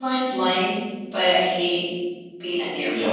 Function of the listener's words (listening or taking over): taking over